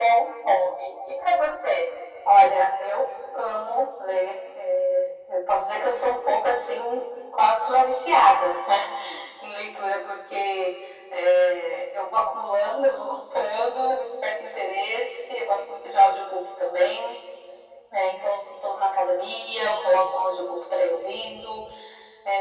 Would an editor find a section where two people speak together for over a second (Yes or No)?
No